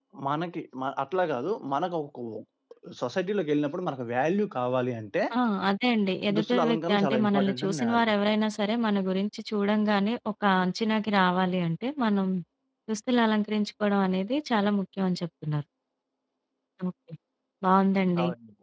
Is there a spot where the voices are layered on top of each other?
Yes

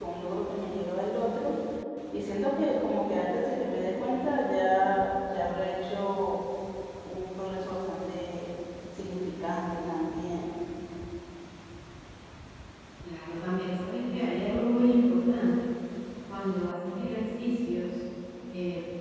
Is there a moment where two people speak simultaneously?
No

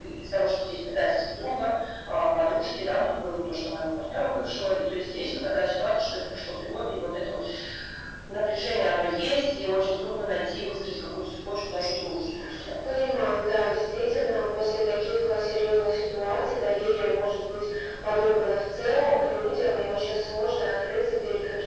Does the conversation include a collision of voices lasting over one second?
No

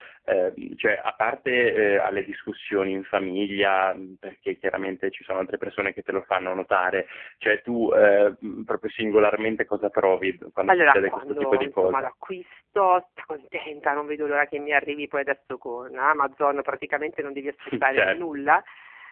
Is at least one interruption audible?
Yes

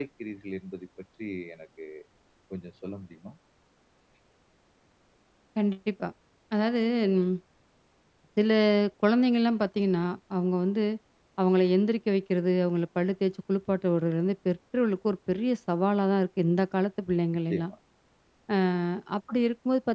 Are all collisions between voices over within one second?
Yes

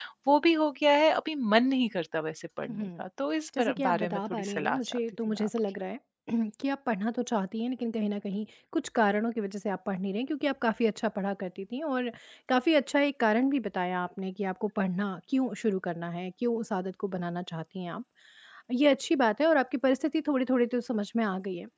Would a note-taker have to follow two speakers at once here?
Yes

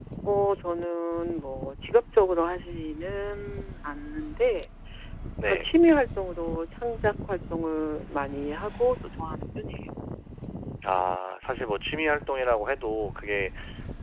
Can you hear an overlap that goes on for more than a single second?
No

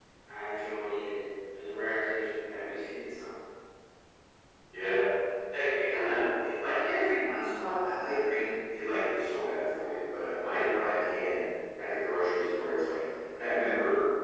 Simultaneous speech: No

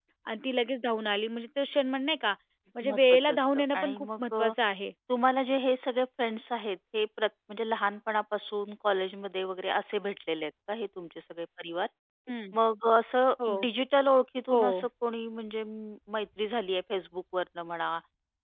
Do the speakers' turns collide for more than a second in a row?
Yes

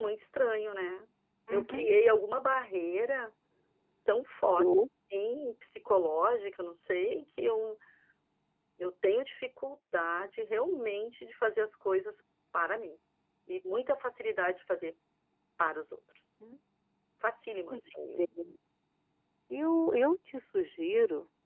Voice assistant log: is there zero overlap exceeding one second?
Yes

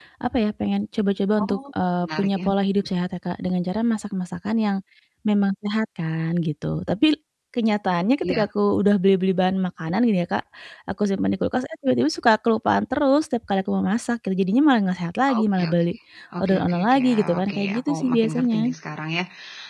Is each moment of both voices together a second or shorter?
No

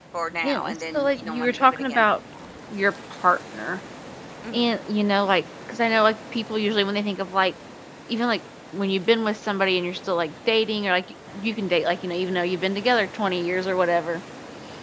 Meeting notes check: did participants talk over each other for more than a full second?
Yes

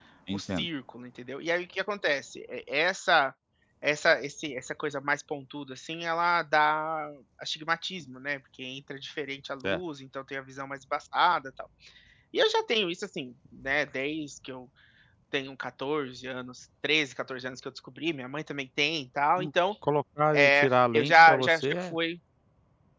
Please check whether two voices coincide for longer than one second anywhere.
Yes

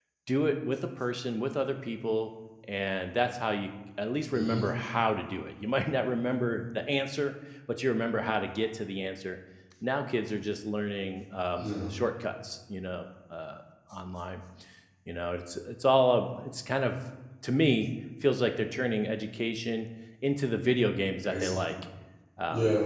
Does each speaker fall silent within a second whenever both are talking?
Yes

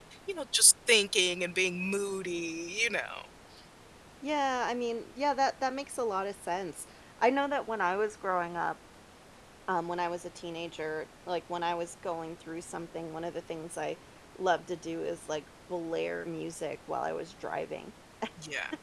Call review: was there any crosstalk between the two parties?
No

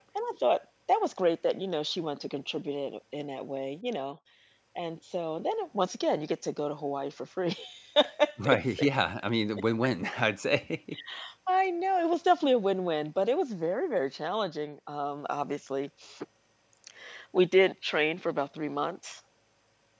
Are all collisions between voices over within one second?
Yes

